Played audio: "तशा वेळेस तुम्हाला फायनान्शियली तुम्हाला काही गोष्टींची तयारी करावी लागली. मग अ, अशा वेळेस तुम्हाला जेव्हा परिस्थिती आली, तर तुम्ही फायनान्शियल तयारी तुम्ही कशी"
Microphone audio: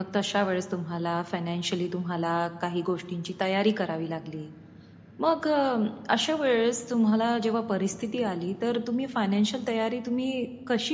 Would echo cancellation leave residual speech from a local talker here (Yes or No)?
No